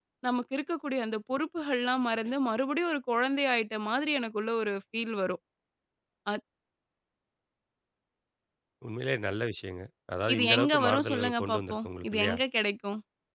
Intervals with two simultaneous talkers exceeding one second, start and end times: 10.3-12.4

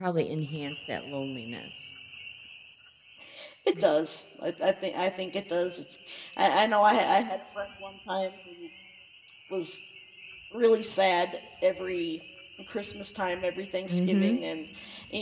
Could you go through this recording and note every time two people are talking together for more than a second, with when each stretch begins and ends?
none

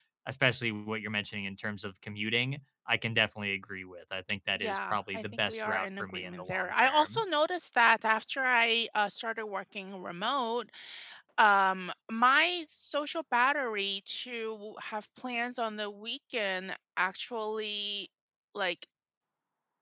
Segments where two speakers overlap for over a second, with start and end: 4.6-7.2

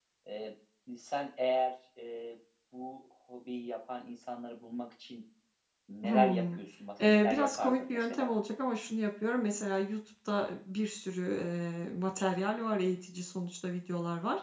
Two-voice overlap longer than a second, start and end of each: 7.0-8.4

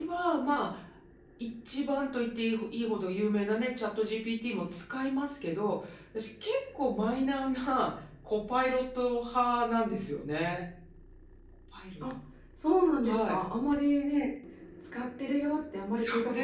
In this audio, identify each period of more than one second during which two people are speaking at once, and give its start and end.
none

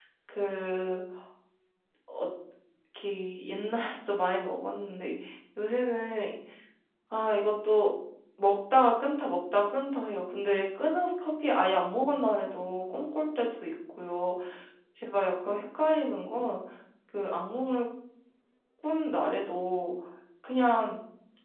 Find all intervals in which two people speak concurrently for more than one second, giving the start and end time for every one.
none

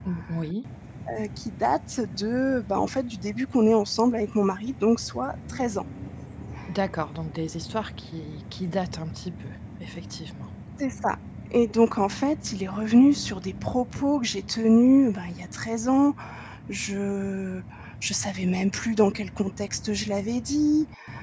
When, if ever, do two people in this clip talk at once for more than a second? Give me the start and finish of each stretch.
none

